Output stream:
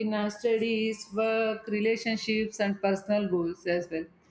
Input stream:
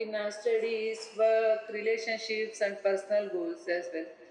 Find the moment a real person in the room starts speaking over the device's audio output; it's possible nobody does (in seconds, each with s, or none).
none